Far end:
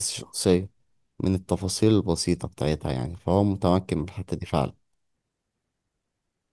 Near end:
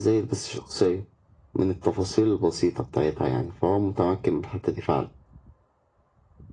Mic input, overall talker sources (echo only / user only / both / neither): echo only